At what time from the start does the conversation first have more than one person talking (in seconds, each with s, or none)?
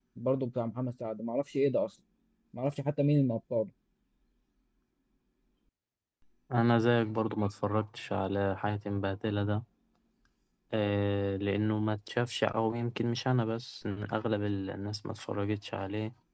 none